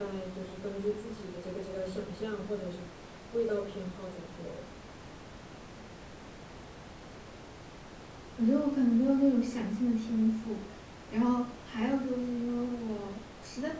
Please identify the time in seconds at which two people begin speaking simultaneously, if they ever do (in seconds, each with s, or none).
none